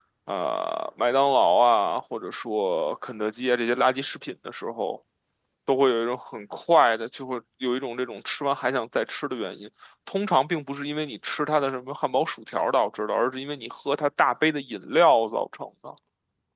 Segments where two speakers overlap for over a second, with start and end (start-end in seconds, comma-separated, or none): none